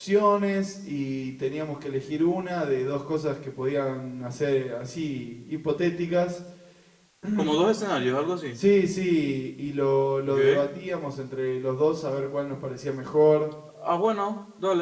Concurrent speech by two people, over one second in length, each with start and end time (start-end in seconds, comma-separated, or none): none